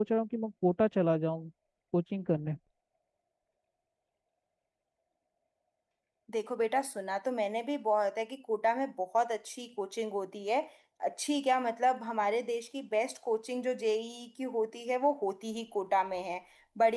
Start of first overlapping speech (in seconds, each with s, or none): none